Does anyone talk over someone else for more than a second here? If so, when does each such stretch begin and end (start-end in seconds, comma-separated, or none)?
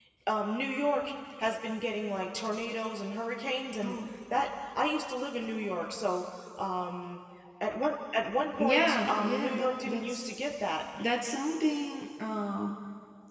8.6-10.3